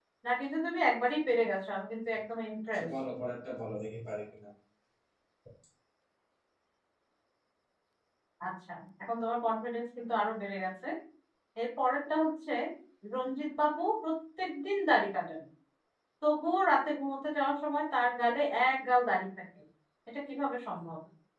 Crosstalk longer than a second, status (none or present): none